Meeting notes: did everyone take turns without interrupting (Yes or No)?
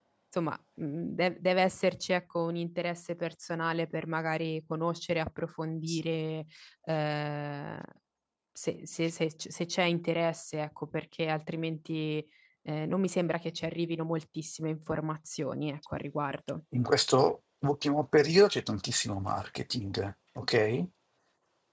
Yes